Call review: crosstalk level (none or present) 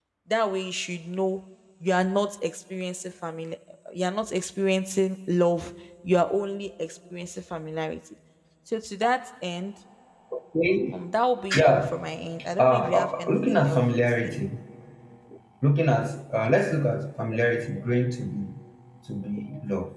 present